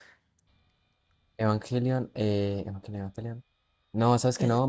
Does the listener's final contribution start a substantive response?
No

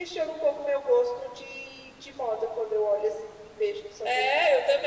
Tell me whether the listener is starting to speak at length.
Yes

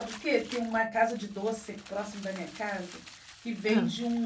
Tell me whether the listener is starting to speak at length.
No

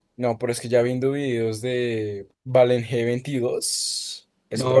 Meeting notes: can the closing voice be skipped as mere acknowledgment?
No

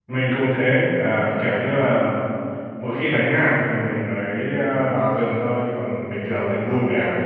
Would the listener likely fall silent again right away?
Yes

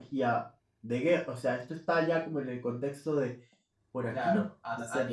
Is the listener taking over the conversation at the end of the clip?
Yes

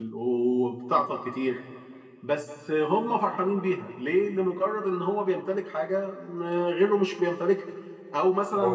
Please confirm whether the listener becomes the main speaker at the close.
No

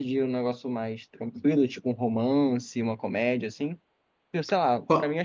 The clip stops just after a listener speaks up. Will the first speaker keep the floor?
Yes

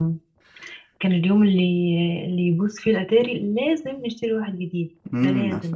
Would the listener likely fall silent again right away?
No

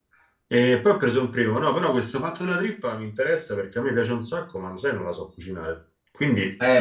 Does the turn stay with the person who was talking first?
No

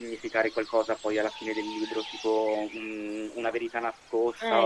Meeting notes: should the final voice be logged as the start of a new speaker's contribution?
Yes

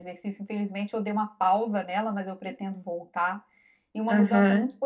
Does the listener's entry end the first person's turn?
No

